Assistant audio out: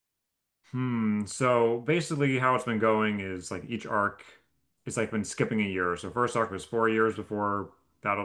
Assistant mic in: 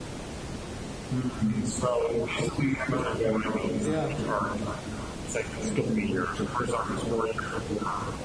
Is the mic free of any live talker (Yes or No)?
No